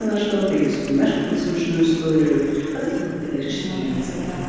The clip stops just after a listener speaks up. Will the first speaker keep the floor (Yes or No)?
No